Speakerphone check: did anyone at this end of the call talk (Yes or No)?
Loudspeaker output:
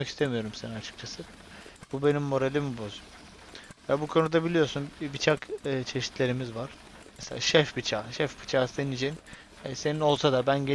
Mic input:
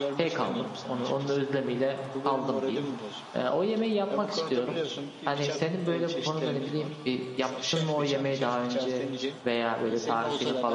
Yes